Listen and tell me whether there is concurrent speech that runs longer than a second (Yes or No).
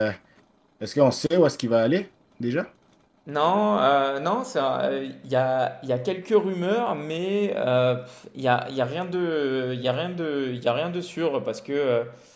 No